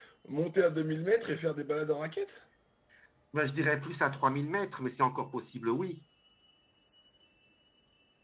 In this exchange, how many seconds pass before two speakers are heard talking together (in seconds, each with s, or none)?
none